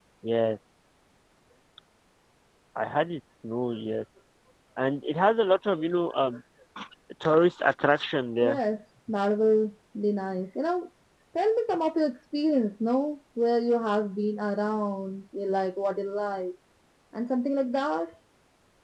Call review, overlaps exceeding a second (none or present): none